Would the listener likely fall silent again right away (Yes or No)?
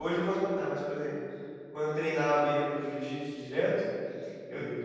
Yes